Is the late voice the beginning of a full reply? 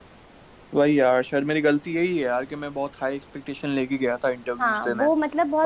Yes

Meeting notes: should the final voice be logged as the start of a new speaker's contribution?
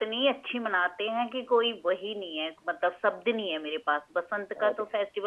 No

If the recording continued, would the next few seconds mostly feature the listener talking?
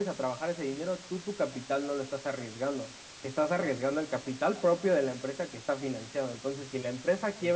No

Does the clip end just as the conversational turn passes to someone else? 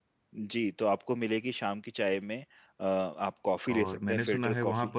Yes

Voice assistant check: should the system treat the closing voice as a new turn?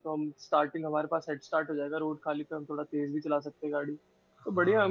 Yes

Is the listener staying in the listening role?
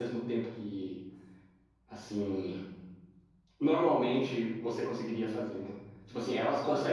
Yes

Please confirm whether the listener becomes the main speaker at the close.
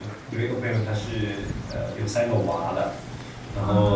No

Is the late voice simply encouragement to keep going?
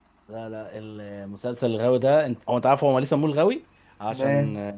Yes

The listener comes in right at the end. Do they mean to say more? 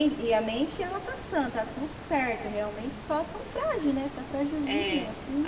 Yes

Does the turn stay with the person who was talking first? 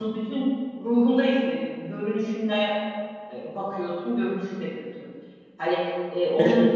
Yes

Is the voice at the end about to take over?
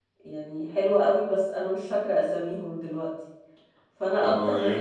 Yes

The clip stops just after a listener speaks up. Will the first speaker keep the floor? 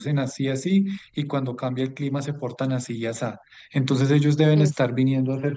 Yes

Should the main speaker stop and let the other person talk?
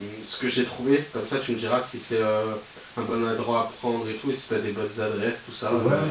Yes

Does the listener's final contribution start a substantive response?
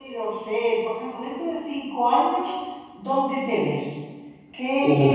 No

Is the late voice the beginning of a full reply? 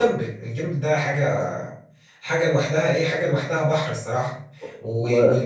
No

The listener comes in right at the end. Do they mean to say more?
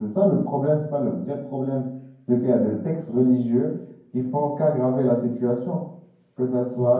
Yes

